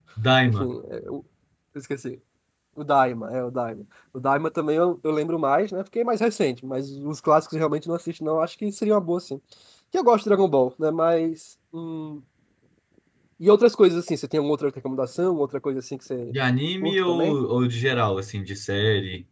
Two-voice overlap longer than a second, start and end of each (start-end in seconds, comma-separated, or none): none